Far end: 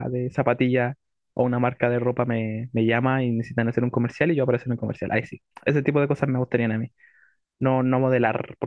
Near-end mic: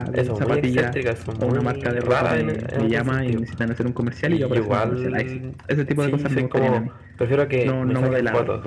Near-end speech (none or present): present